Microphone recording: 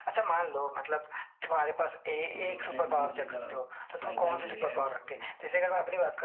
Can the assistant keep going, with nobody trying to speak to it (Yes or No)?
No